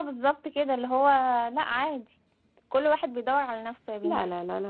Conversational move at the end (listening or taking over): taking over